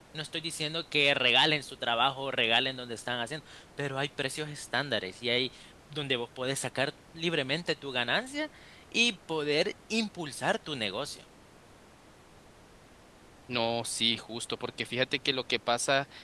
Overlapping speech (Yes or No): No